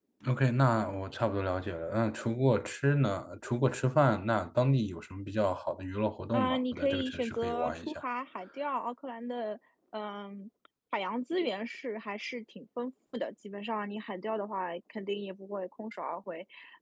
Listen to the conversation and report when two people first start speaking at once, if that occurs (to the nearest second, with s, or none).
6 s